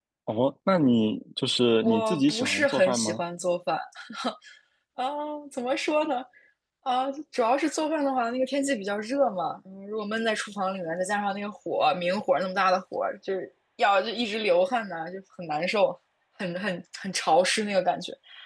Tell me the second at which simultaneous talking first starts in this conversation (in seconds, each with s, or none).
1.8 s